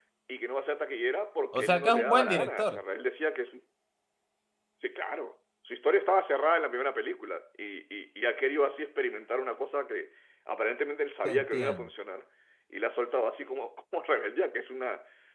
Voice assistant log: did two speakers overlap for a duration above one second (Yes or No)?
Yes